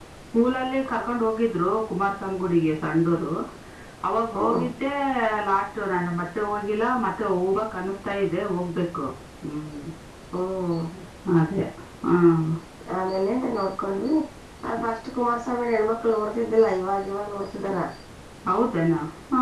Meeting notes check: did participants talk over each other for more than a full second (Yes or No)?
No